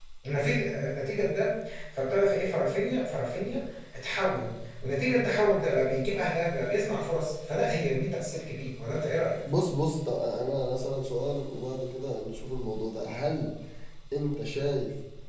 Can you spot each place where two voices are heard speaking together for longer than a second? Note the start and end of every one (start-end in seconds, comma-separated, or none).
none